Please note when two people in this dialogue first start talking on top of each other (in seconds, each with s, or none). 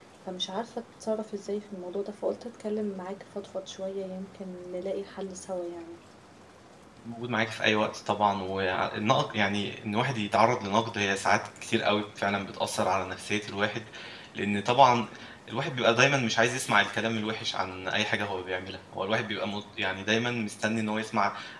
none